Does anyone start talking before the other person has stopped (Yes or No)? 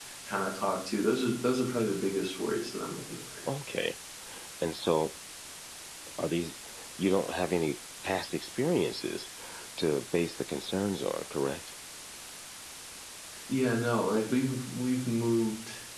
No